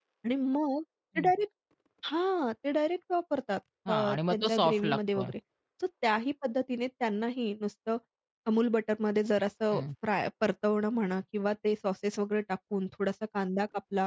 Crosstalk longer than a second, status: present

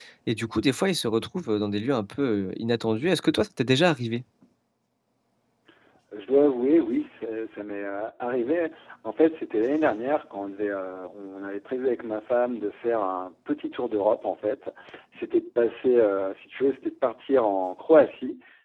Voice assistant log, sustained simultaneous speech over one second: none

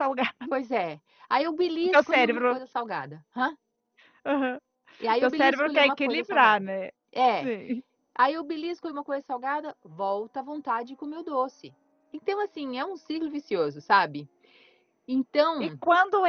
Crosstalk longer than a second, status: present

